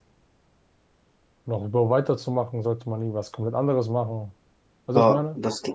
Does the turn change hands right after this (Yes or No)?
Yes